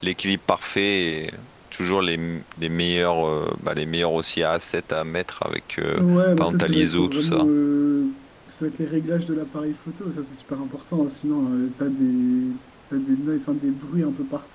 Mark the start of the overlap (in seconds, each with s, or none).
6.0 s